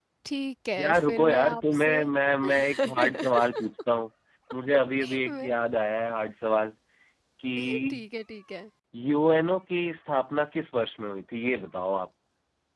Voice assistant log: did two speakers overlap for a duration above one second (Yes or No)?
Yes